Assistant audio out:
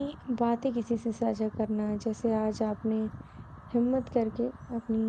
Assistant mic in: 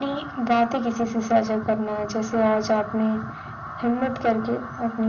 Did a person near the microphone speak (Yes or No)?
No